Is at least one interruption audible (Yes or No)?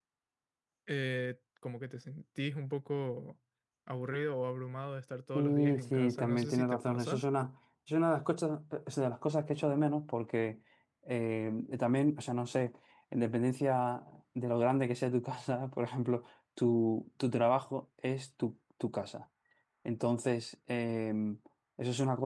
Yes